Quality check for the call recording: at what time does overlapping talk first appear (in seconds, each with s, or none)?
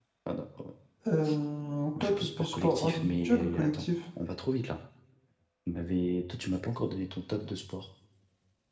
2.0 s